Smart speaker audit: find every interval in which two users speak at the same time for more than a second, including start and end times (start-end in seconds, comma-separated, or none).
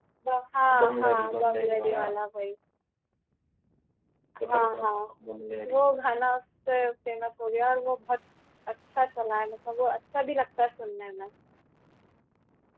0.8-2.0